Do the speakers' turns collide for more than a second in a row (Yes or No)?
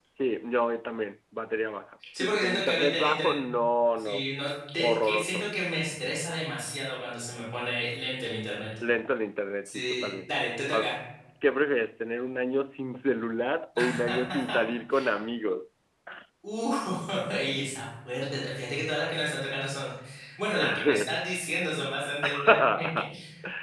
Yes